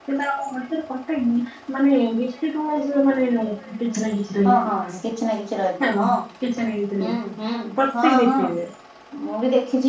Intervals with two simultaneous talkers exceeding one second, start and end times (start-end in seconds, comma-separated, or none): none